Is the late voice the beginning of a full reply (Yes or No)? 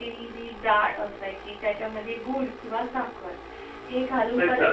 No